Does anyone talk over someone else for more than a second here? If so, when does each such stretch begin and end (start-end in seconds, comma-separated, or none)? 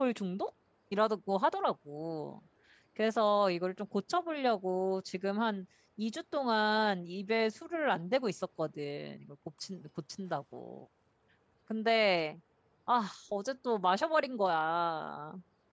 none